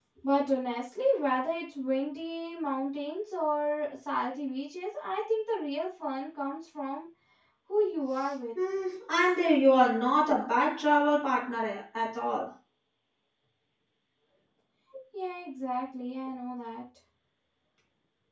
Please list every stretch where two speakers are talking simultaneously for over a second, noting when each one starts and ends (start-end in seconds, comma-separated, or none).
none